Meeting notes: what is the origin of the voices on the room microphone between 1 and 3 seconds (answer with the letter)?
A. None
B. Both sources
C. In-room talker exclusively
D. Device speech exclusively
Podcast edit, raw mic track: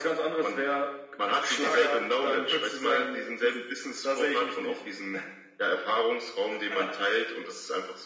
D